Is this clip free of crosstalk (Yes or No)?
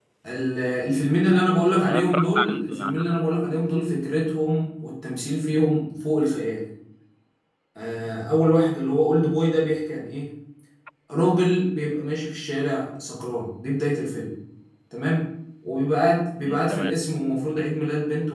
No